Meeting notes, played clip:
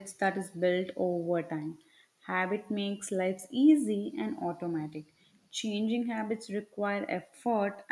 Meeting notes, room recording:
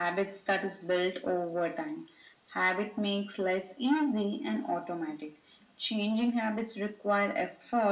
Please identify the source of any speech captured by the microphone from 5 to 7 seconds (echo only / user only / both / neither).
echo only